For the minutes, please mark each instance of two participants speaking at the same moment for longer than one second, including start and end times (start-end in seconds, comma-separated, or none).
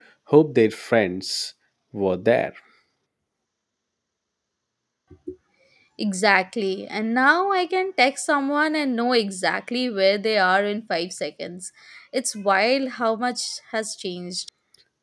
none